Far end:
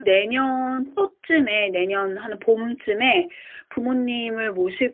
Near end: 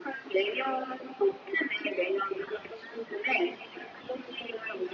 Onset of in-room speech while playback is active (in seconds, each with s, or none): none